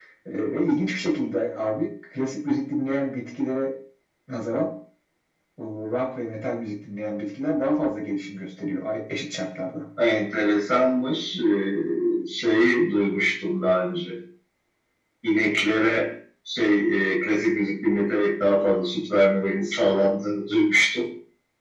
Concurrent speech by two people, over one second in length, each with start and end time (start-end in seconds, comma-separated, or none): none